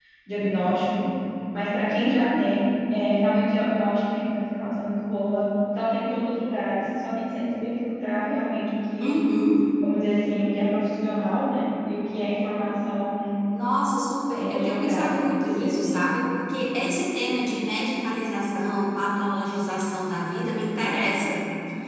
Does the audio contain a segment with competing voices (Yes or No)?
Yes